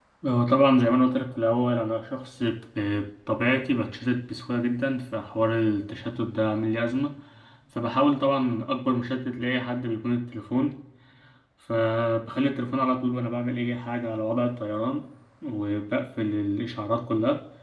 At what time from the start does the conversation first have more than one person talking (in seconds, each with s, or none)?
none